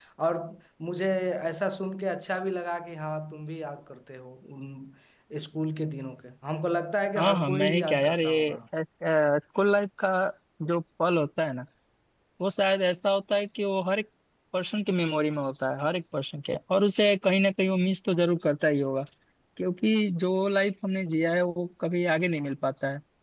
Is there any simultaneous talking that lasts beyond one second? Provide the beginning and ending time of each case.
7.2-8.6

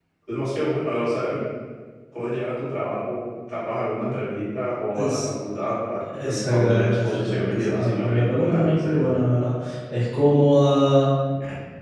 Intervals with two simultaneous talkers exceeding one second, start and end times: 6.5-9.2

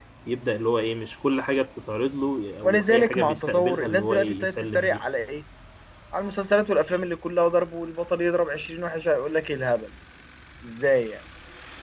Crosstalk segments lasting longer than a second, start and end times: 2.6-5.0

